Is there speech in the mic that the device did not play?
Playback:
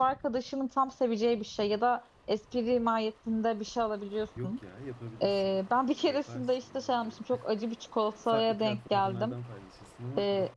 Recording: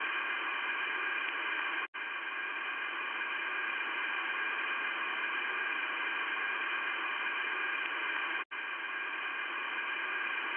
No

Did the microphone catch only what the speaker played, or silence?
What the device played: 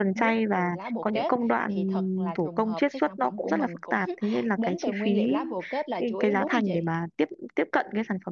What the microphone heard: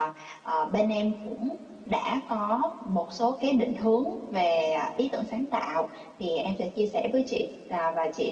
No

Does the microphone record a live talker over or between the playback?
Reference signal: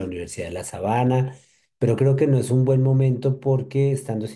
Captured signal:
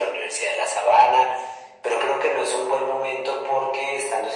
No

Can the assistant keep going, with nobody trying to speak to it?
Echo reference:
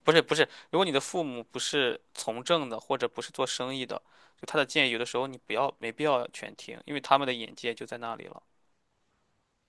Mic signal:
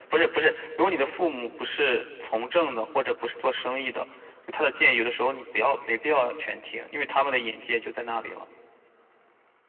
Yes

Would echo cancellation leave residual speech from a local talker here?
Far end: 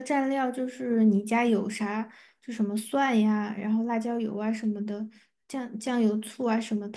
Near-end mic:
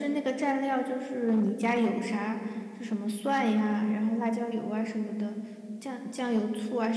No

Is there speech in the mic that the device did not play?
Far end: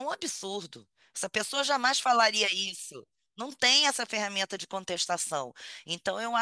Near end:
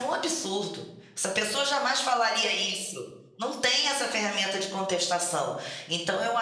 No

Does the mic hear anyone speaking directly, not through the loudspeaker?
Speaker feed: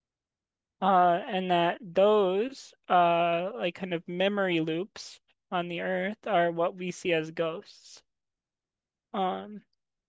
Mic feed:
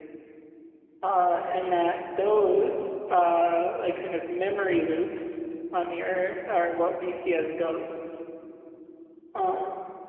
No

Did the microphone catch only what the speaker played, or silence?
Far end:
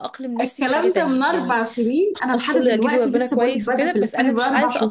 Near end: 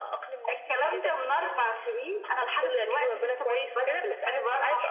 Yes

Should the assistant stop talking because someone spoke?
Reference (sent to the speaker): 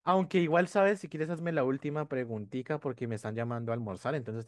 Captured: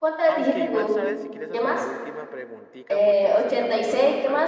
Yes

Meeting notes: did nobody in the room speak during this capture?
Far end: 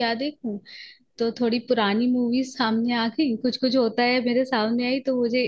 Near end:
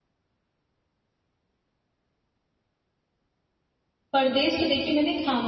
No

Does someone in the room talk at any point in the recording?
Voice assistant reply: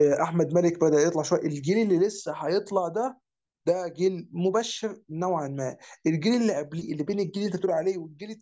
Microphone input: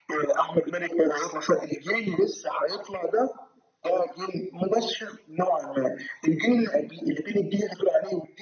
No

